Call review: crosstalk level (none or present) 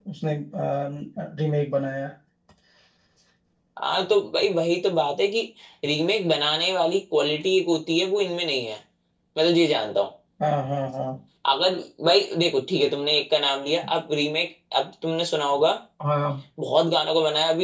none